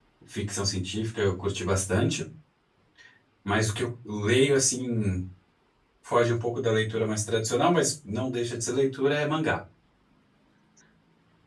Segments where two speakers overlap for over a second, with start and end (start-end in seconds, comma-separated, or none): none